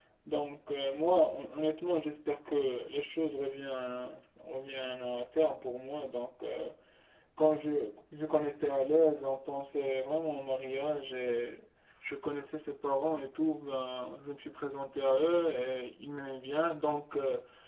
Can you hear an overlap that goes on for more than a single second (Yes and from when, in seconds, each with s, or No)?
No